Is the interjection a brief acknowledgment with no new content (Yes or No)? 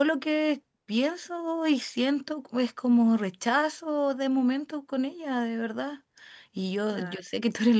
Yes